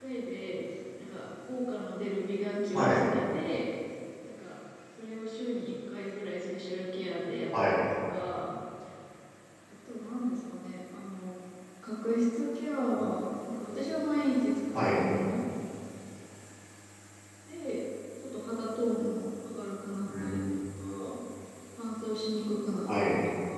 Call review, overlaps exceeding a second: none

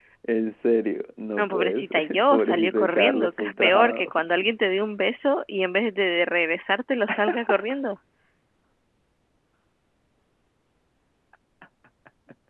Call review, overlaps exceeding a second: present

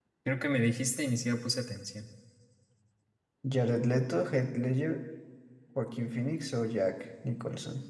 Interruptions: none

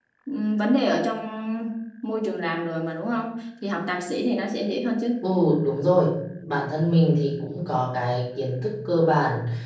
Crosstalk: none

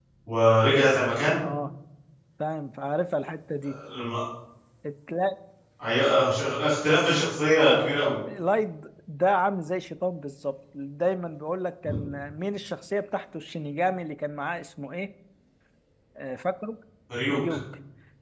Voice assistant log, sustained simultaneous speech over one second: none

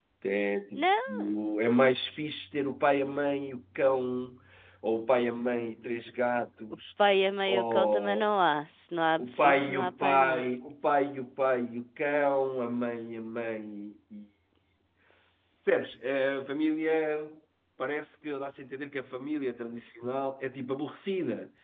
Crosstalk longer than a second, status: present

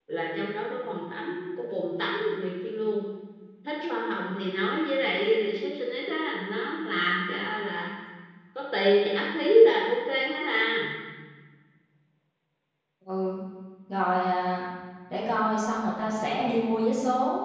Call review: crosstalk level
none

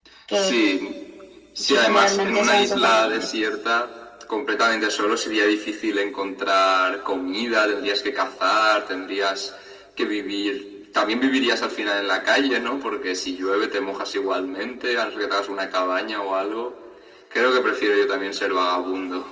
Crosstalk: present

